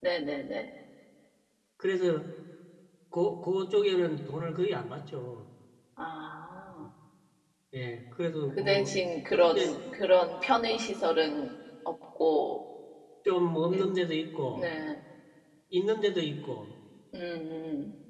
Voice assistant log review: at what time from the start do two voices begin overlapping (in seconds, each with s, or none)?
8.5 s